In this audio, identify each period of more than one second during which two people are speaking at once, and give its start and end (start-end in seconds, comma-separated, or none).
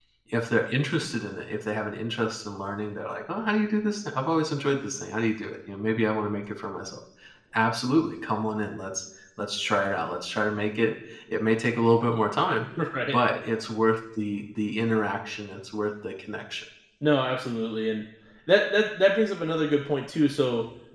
none